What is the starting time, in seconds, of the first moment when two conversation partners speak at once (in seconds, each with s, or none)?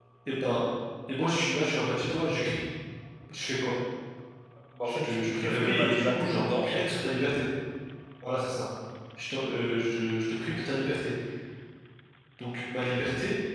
4.8 s